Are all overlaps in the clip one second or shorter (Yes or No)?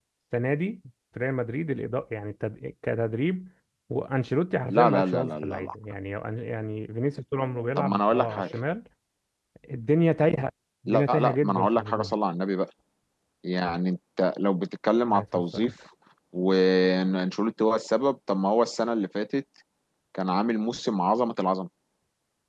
No